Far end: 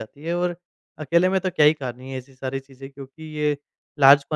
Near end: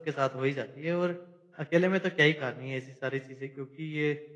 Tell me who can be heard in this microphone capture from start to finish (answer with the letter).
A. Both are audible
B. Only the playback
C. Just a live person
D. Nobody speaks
B